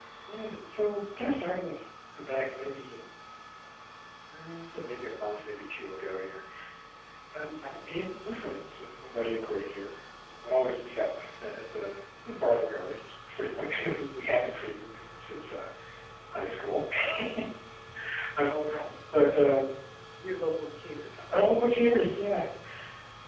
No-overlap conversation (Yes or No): Yes